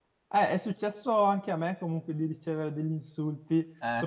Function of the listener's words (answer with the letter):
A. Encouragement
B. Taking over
A